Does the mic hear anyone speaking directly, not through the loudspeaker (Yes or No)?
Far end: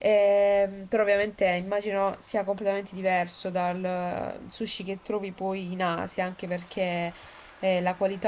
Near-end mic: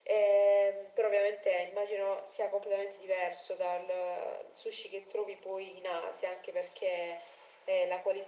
No